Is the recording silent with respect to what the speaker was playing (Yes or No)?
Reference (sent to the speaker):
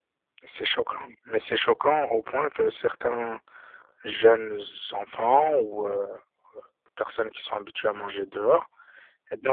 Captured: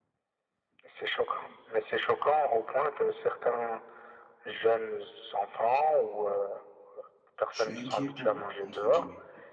No